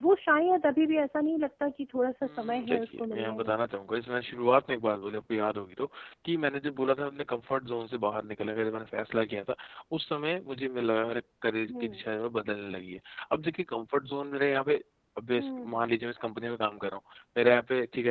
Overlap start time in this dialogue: 2.2 s

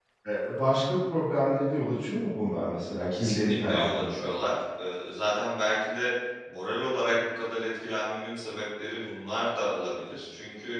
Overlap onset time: 3.0 s

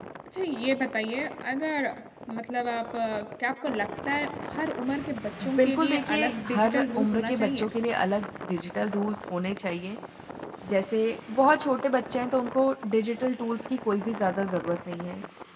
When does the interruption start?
5.4 s

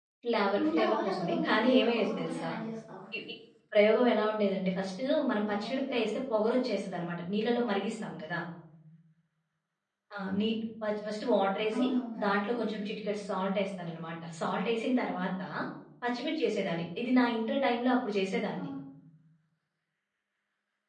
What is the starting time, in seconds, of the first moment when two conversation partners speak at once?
0.6 s

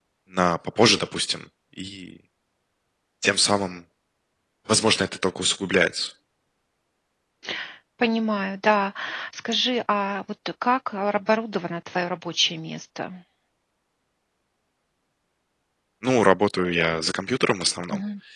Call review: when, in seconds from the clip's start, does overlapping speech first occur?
none

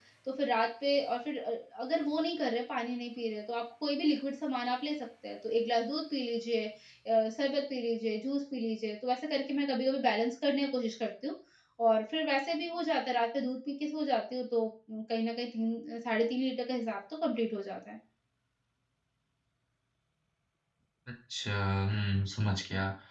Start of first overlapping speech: none

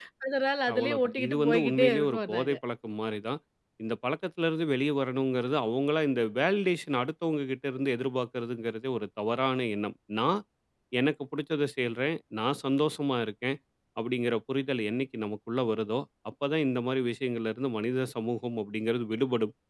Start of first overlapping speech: 0.7 s

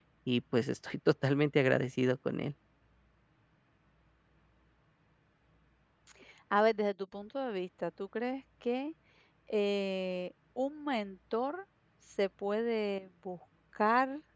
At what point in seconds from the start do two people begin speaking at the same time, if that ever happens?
none

